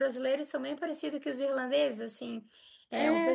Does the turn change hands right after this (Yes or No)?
No